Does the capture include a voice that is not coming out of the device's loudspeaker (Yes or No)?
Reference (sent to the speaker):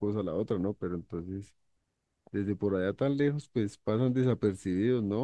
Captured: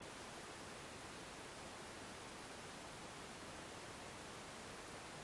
No